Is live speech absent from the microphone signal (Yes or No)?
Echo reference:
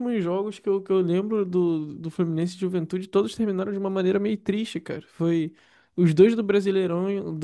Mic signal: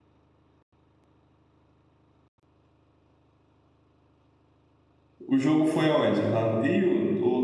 No